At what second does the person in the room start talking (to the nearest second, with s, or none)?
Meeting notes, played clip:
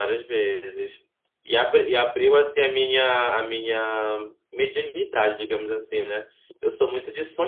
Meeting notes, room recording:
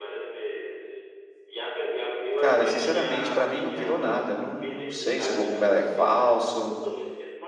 2 s